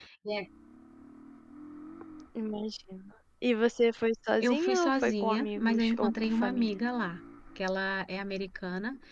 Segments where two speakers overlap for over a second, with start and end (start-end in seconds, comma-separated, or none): 4.4-6.7